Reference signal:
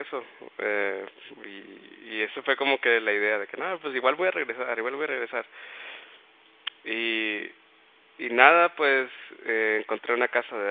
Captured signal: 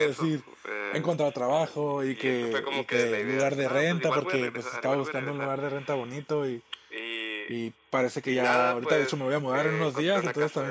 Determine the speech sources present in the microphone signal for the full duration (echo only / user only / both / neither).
both